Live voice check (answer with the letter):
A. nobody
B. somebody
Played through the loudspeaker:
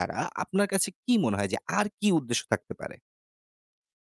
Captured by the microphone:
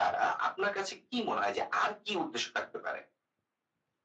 A